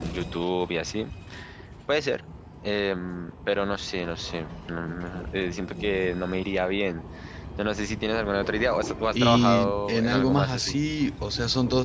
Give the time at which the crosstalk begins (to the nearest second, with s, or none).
9 s